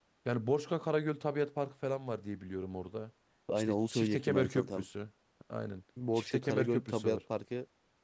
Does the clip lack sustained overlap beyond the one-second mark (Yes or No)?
No